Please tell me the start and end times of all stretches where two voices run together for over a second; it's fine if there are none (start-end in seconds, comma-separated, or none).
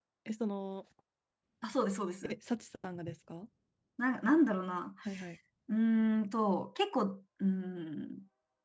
none